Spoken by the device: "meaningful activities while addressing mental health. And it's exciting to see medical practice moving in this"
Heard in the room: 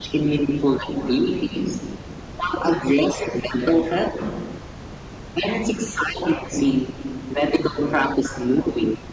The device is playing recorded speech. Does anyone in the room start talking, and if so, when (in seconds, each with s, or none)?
none